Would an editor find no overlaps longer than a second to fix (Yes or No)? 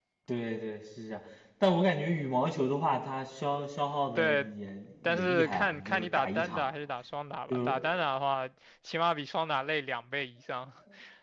No